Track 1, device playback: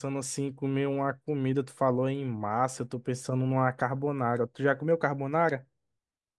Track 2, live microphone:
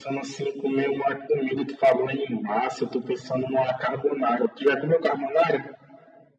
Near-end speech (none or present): none